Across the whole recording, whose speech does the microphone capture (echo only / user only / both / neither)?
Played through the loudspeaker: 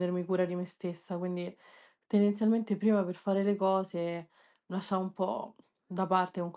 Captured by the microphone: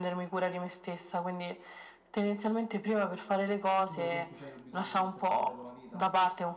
both